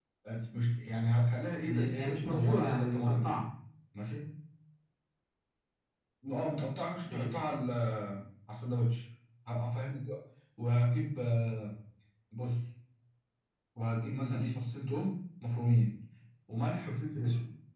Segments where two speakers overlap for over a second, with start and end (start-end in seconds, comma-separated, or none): 1.6-3.4